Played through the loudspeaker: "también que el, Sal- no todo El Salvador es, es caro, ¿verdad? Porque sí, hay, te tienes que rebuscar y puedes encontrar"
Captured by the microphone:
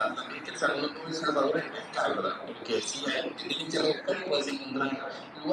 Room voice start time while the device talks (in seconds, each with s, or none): none